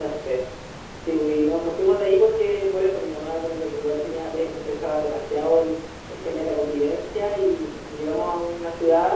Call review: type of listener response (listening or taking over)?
listening